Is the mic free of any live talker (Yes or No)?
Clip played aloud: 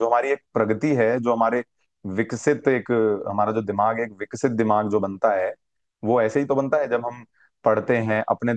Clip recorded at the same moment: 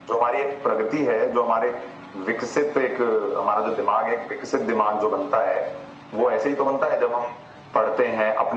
Yes